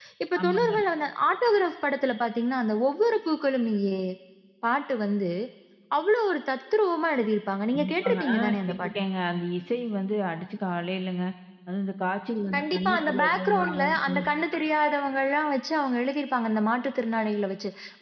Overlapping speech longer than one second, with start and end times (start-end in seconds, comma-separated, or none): 7.7-9.0, 12.5-14.2